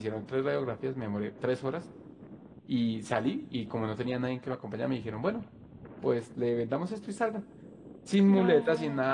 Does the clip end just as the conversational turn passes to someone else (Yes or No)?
No